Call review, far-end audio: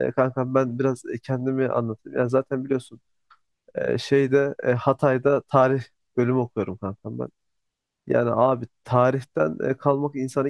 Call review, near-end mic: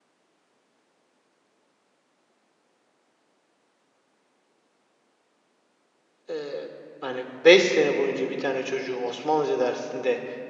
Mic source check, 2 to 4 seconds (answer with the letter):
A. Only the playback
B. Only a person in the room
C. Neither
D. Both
C